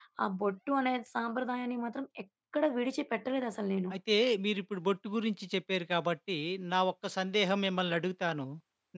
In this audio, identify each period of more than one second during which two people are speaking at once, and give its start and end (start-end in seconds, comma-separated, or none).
none